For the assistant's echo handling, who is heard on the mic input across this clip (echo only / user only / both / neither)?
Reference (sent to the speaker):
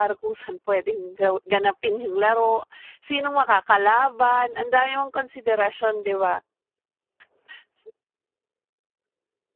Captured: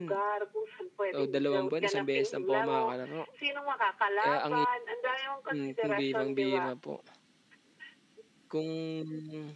both